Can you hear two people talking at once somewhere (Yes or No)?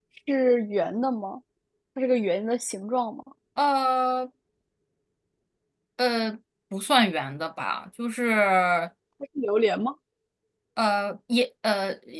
No